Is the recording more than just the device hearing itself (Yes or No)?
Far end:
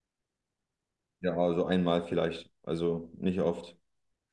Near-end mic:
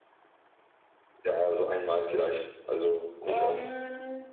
Yes